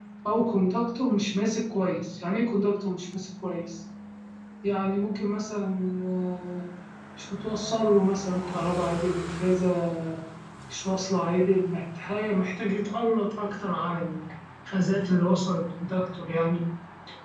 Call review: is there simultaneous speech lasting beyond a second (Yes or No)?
No